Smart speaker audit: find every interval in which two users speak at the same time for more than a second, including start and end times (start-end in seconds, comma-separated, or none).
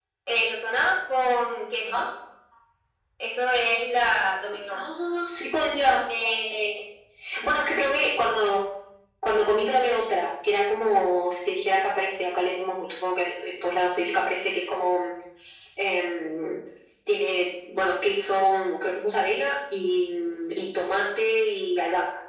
none